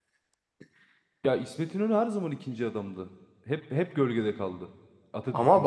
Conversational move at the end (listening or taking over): taking over